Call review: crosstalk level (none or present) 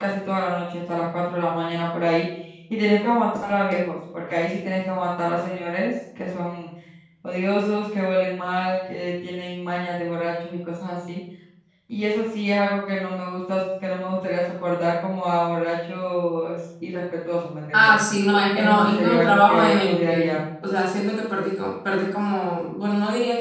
present